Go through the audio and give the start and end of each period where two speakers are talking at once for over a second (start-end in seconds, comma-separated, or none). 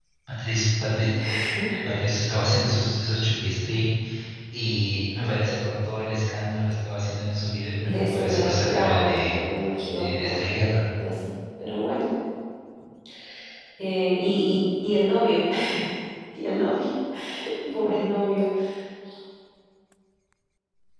7.8-9.4